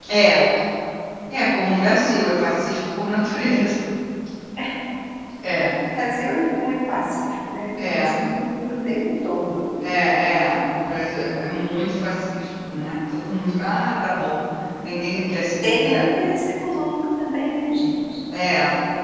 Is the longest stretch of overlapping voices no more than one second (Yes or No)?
Yes